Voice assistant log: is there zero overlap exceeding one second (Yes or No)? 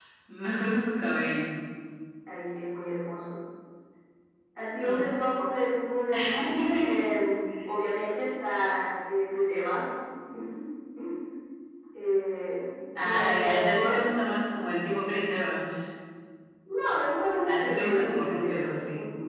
No